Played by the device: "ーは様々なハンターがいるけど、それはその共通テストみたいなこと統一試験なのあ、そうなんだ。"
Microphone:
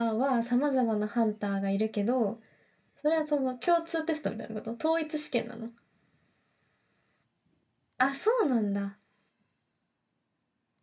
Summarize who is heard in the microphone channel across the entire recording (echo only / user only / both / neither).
echo only